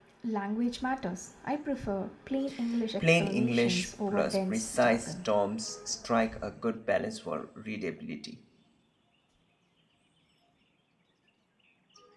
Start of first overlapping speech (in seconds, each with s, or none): 3.2 s